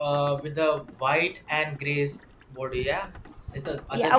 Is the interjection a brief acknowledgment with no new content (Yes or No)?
No